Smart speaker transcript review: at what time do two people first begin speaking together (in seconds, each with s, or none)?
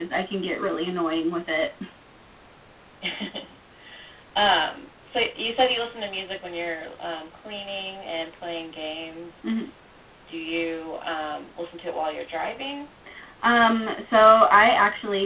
none